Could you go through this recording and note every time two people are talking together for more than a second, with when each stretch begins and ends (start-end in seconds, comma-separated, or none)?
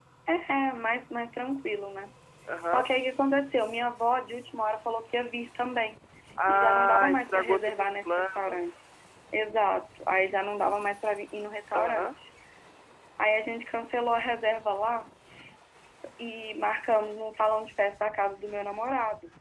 6.5-8.8